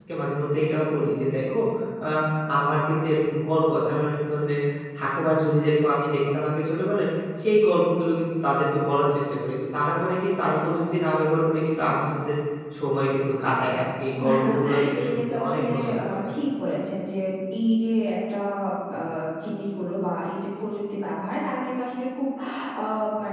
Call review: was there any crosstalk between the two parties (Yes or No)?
Yes